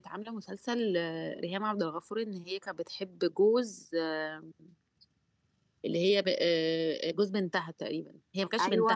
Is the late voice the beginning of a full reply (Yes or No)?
Yes